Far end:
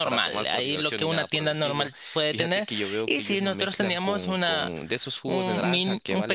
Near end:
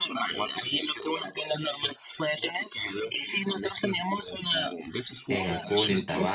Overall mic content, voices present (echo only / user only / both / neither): both